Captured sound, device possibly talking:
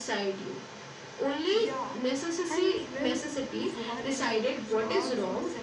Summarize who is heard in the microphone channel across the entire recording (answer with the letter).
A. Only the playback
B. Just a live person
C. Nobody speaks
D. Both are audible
D